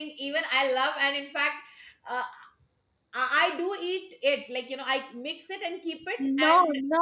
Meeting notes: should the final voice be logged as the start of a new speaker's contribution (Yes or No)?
Yes